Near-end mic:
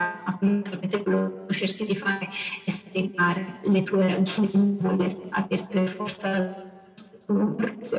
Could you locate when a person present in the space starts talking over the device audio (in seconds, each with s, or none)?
none